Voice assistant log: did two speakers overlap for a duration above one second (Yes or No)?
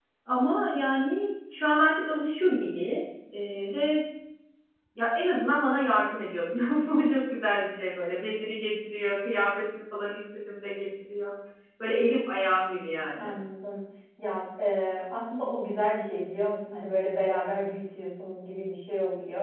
No